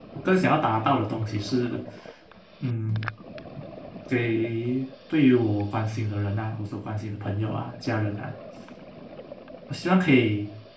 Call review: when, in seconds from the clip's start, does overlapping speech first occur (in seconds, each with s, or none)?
none